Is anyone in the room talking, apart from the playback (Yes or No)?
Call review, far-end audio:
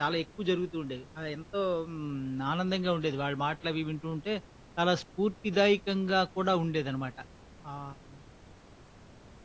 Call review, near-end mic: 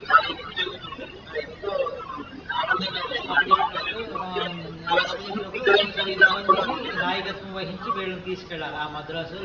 Yes